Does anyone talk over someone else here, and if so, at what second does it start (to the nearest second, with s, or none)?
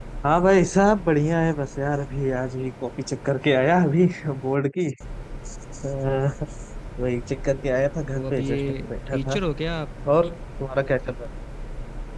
8 s